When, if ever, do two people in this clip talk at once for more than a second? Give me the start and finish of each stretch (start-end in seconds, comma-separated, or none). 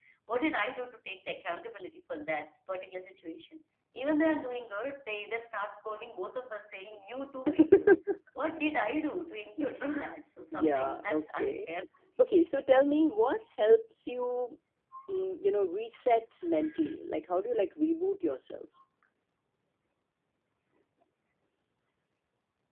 10.5-11.7